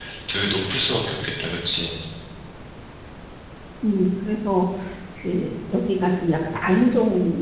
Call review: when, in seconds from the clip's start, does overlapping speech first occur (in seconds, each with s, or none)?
none